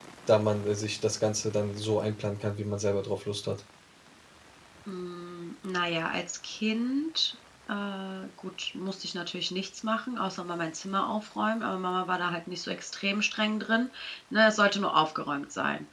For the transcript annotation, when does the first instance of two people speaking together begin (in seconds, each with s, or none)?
none